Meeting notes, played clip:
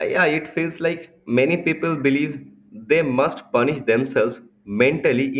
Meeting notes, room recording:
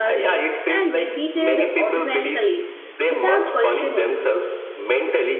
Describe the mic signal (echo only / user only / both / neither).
both